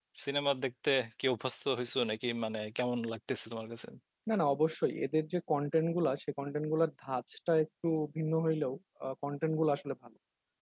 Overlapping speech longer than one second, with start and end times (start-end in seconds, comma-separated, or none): none